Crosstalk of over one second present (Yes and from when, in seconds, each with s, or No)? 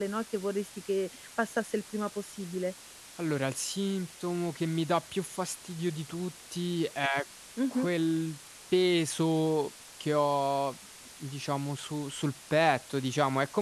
No